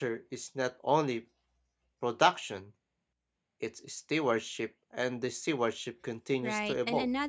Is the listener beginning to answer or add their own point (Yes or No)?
Yes